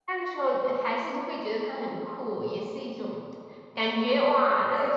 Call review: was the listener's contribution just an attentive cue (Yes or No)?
Yes